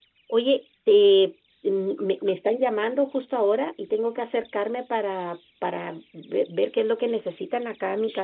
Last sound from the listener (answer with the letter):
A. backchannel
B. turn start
B